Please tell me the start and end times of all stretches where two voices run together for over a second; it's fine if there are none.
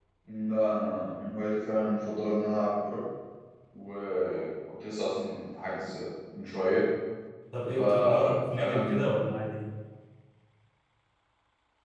7.8-9.1

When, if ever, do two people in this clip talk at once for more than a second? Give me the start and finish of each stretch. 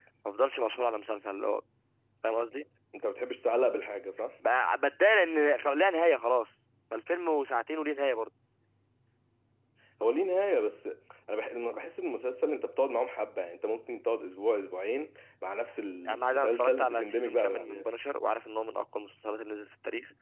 16.1-17.9

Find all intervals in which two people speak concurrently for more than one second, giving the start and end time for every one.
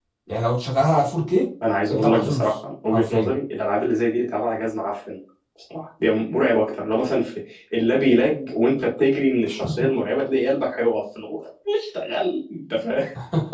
none

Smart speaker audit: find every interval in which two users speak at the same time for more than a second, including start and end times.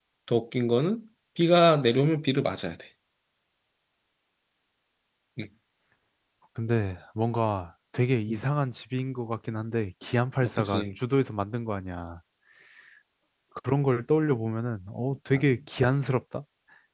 none

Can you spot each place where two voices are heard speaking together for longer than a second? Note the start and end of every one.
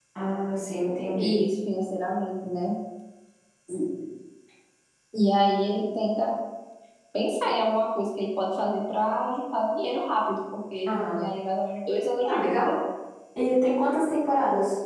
none

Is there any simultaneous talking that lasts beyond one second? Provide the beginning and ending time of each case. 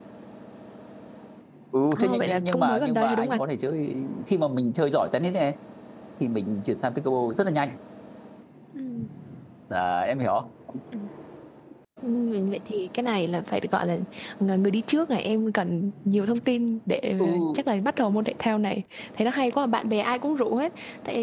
1.9-3.4

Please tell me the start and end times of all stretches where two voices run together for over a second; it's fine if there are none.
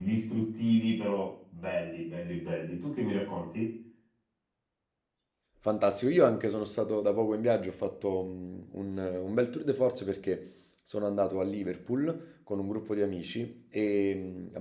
none

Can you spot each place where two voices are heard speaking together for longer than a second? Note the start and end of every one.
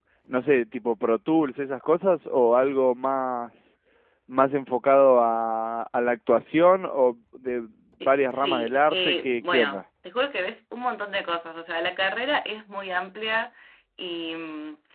8.0-9.8

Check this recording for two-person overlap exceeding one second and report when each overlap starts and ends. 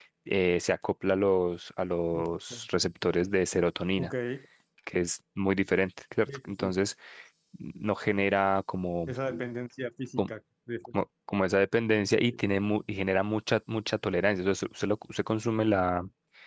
none

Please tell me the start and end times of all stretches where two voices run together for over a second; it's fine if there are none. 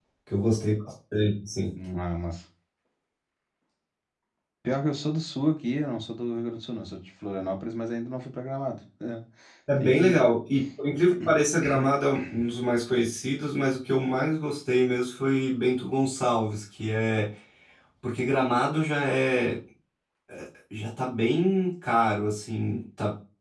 none

